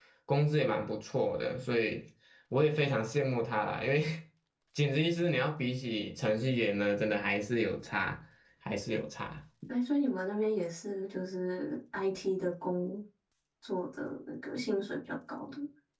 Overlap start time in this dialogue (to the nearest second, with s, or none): none